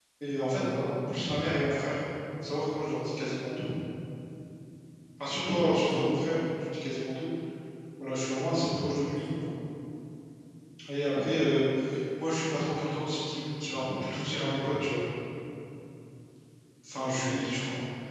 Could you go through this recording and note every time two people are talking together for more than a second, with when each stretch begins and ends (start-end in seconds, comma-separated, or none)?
none